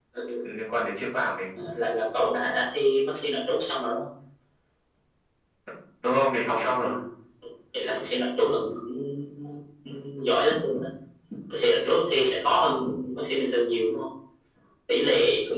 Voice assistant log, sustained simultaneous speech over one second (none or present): none